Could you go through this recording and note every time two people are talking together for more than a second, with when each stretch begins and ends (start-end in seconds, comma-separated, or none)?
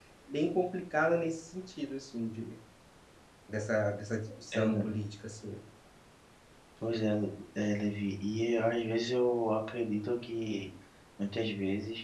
none